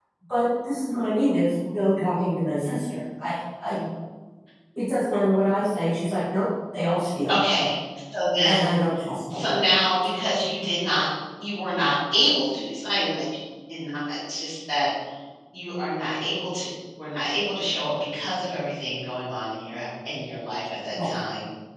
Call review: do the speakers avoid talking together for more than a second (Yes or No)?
Yes